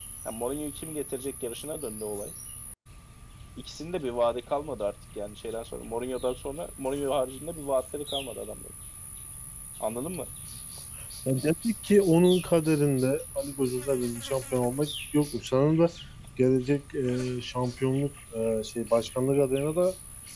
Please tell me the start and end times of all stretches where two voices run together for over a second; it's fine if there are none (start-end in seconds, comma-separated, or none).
none